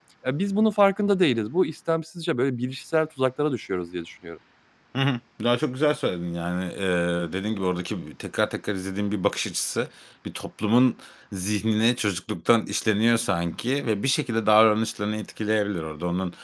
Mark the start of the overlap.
none

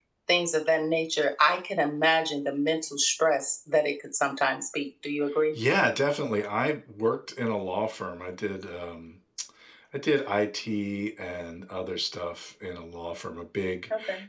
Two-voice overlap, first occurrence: none

